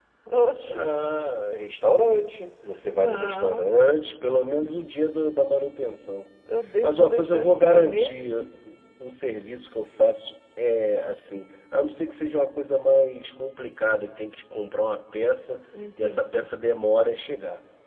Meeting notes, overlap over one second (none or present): present